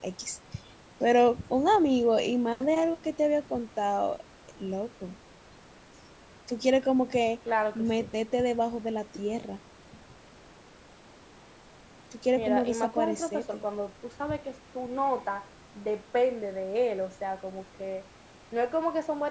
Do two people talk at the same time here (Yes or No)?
Yes